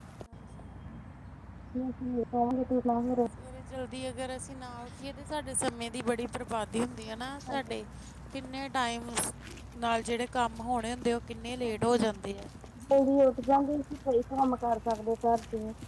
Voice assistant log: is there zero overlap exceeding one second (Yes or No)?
Yes